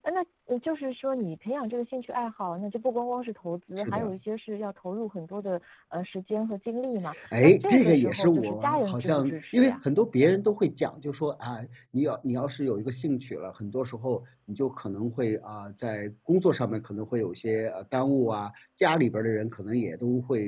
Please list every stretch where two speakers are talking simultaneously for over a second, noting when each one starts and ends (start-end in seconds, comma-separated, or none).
7.3-9.8